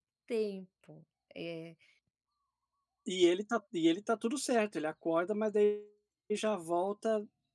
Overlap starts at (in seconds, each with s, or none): none